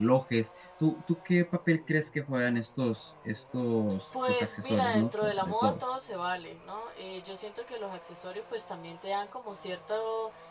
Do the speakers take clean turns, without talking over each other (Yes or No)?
No